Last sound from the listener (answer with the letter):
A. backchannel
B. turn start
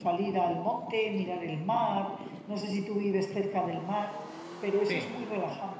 A